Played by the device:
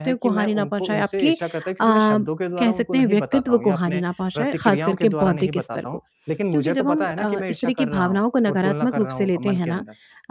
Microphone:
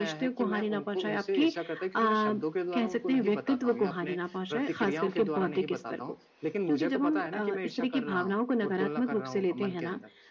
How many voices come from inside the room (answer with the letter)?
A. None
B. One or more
A